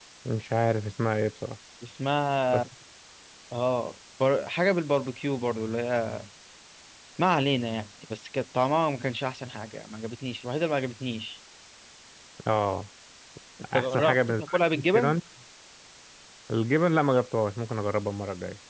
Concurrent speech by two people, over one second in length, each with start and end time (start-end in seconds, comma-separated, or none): 13.7-15.2